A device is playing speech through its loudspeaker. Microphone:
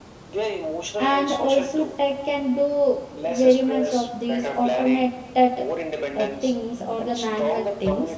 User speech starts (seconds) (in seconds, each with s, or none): 1.0 s